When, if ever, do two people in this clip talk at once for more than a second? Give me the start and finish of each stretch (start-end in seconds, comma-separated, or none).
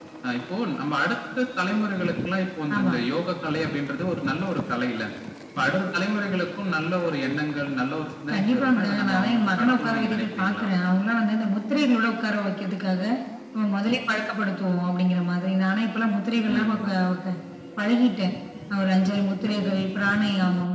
8.3-10.7